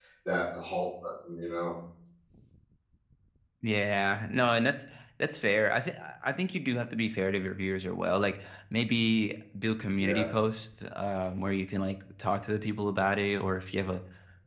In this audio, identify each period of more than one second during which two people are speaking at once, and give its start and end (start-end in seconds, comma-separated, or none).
none